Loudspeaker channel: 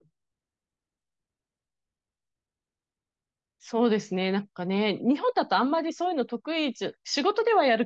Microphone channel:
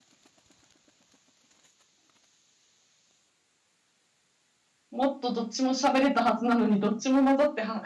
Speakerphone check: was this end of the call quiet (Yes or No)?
No